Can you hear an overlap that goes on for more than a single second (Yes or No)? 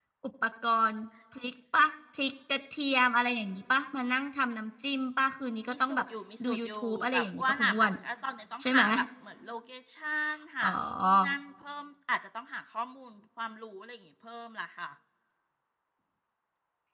Yes